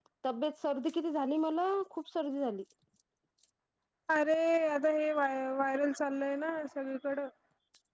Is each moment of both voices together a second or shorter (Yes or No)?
Yes